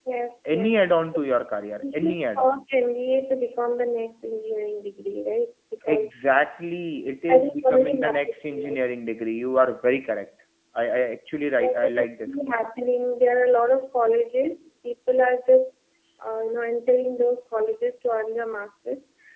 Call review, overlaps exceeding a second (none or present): present